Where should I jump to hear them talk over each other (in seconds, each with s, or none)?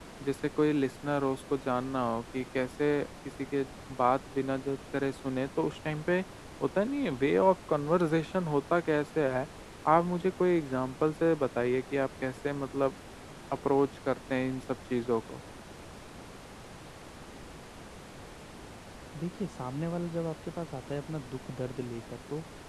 none